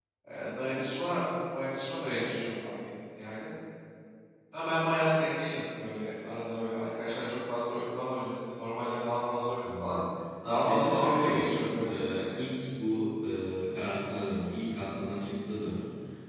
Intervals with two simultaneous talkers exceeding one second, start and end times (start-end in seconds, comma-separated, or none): 10.5-12.4